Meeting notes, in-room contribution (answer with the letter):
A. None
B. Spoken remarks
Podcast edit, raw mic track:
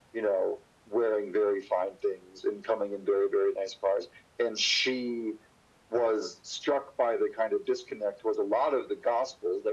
A